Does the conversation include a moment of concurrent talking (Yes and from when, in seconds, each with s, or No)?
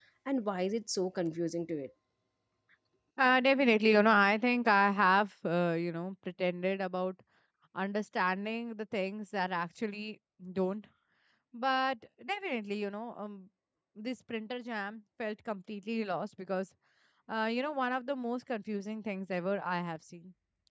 No